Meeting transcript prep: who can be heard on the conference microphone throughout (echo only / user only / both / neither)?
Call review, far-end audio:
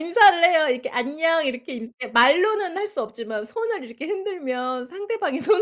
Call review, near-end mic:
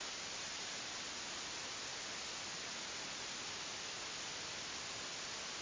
neither